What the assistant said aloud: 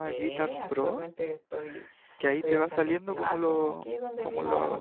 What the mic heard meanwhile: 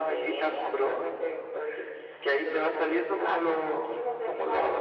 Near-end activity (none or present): none